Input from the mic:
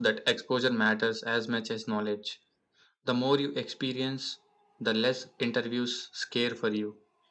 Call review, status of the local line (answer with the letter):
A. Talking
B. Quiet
B